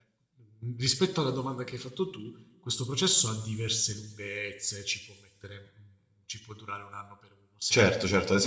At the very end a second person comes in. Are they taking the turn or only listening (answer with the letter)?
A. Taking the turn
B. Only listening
A